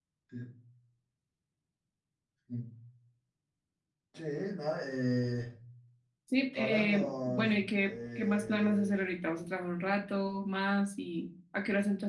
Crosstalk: present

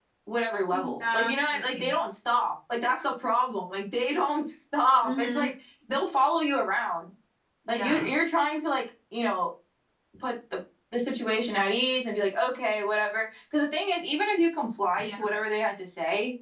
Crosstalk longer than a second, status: present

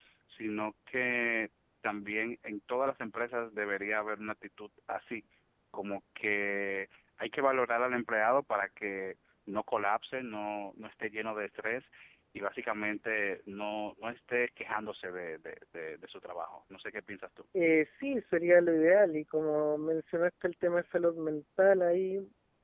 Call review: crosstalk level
none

